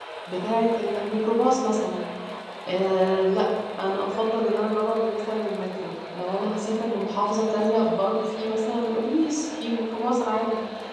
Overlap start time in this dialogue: none

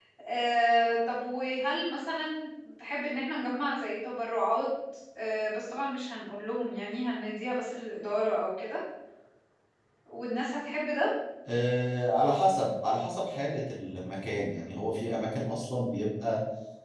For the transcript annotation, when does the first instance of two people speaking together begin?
none

